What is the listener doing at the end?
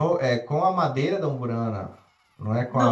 taking over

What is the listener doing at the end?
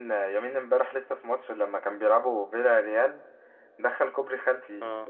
listening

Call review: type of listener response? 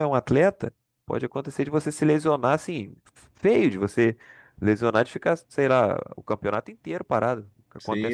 taking over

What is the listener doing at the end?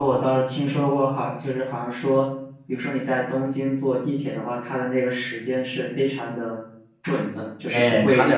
taking over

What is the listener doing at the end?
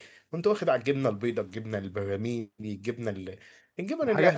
taking over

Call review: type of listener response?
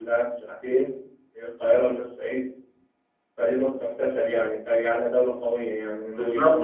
taking over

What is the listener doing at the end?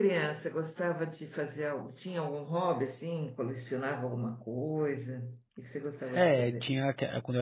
taking over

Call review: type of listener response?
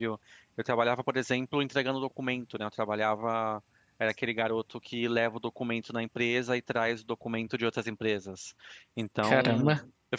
listening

